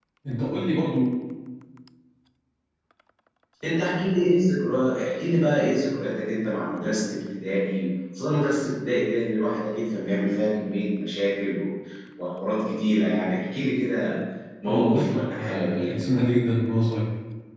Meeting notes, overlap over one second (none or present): present